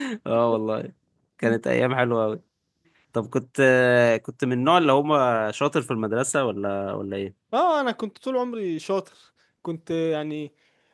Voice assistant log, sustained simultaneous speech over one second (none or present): none